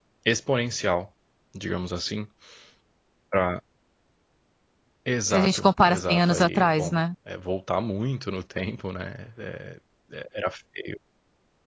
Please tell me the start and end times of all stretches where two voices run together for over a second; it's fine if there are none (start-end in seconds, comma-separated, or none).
5.3-7.0